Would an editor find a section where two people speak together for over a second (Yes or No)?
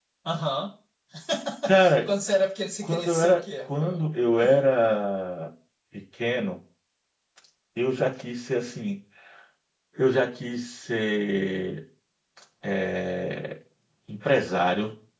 Yes